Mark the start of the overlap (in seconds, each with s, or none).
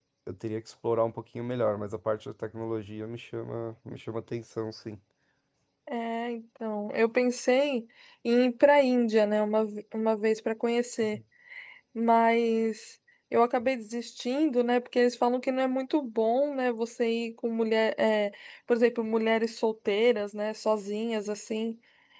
none